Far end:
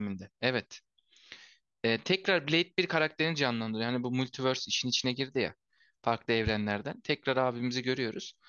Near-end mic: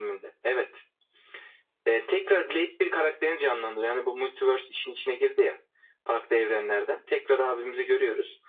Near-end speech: none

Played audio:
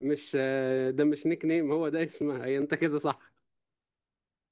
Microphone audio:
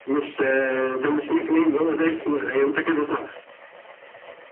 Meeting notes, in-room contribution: none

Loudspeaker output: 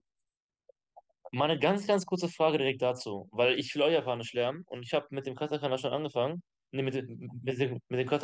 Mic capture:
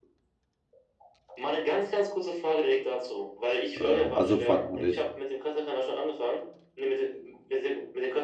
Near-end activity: present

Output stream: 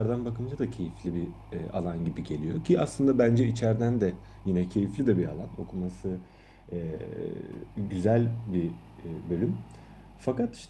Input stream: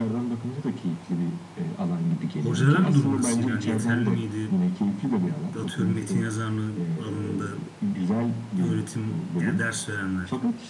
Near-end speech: present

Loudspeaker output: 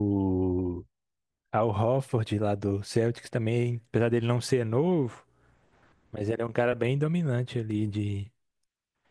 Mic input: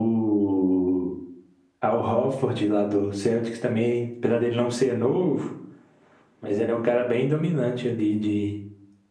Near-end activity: none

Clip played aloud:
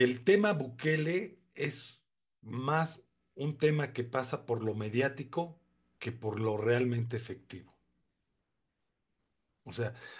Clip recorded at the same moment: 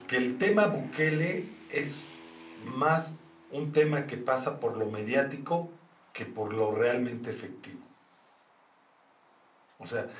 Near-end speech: none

